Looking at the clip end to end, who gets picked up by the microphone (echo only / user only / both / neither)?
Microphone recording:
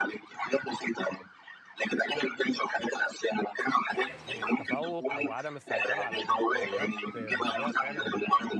both